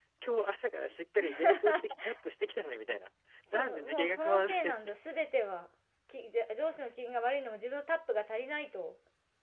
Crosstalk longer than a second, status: present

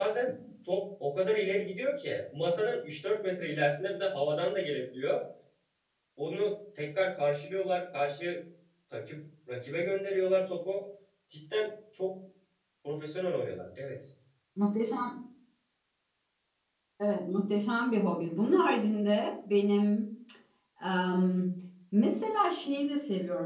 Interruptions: none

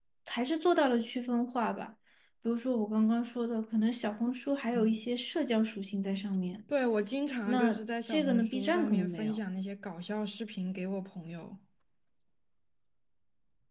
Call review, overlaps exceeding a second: present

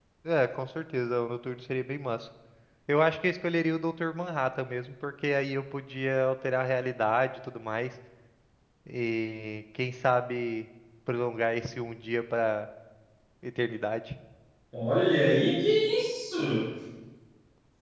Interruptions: none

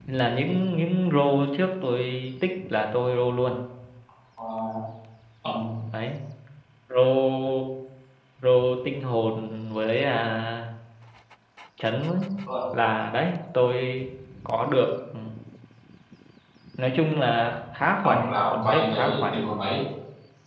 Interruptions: present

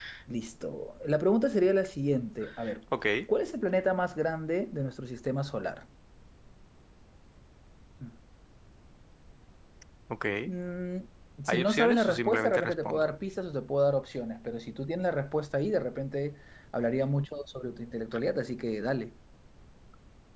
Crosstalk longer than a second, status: present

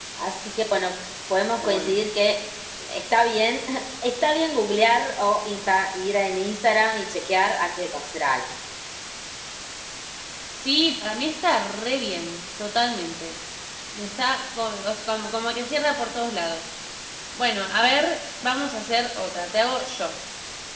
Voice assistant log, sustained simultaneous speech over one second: none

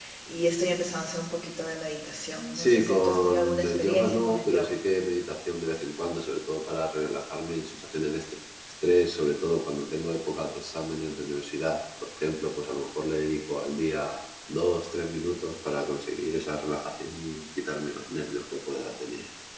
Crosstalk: present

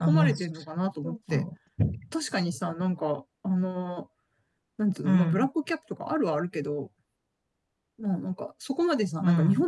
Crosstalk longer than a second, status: none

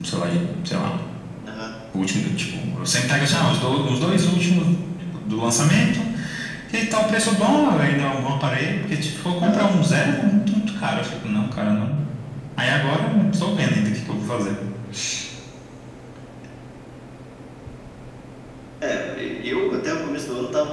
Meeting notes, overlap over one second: none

